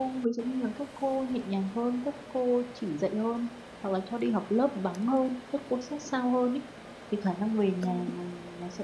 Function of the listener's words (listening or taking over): listening